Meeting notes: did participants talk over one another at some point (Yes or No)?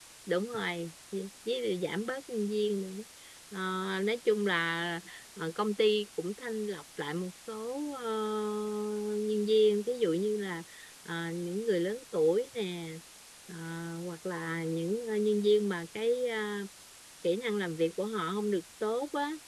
No